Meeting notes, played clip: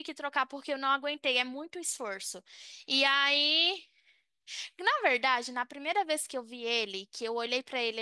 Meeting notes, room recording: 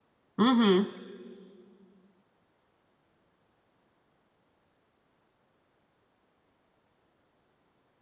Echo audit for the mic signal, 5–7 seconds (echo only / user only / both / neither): neither